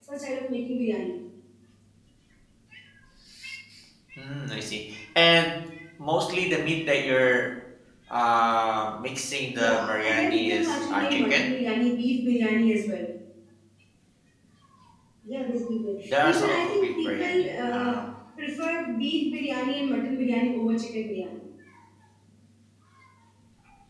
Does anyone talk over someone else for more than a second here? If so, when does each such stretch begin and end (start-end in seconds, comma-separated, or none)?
9.5-11.4, 16.1-18.0